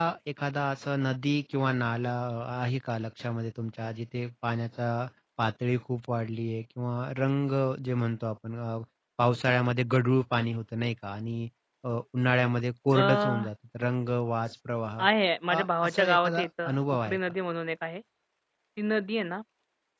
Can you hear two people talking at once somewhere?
Yes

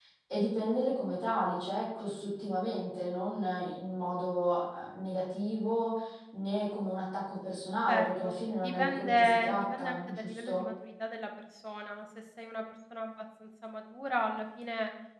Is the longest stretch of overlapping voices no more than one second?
No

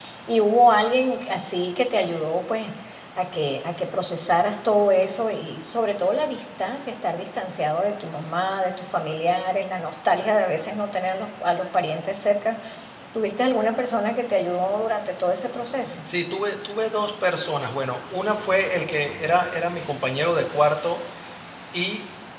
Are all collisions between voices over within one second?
Yes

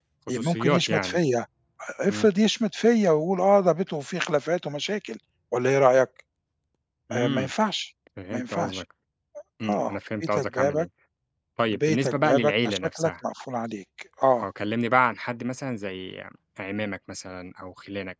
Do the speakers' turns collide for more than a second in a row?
Yes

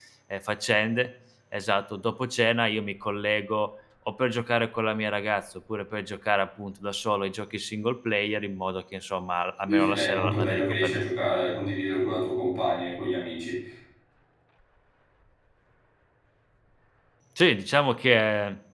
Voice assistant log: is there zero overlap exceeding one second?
No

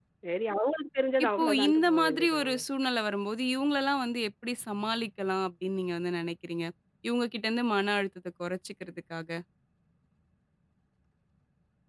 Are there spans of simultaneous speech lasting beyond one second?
Yes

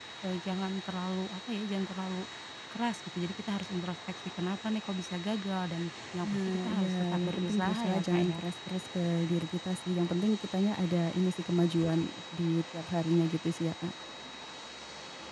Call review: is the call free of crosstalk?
No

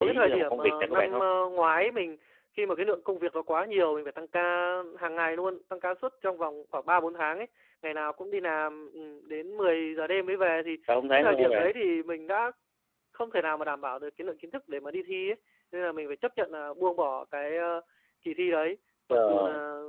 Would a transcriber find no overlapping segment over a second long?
No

